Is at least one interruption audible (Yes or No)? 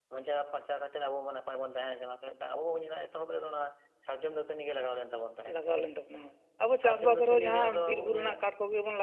Yes